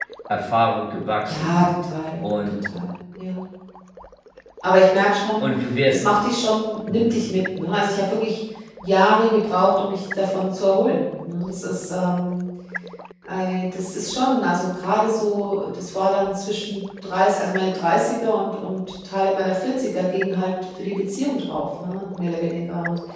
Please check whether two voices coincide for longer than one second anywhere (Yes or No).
No